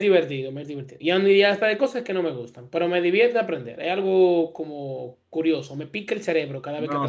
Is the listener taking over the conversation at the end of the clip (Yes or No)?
Yes